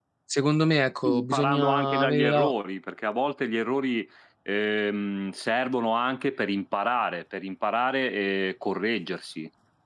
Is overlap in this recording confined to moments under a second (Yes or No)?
No